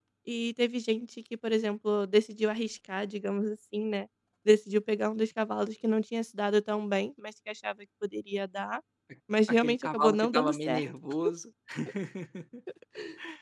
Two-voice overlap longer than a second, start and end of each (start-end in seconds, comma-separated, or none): 9.5-10.8